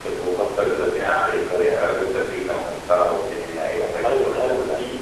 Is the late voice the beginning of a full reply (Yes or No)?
Yes